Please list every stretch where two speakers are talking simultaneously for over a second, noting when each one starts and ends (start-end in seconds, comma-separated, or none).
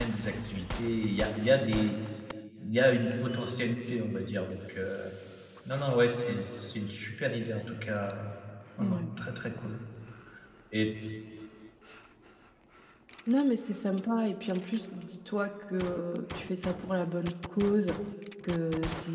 none